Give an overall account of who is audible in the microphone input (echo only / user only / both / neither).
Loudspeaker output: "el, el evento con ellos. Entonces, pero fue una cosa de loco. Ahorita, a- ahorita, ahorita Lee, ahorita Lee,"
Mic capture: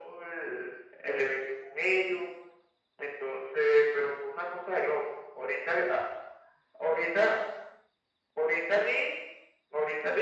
echo only